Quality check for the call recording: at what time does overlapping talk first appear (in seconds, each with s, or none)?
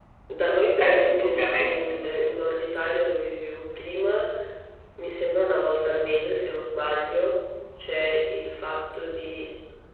0.8 s